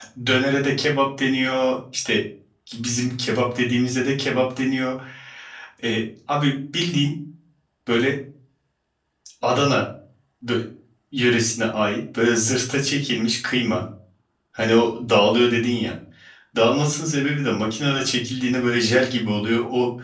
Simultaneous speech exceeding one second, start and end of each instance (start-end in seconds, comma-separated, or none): none